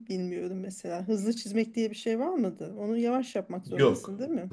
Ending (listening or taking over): taking over